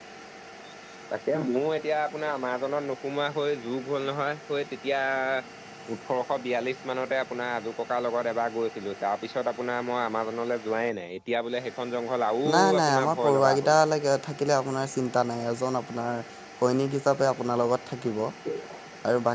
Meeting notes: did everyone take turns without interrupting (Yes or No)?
No